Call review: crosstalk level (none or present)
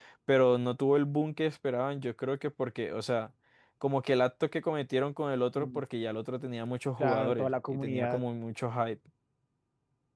present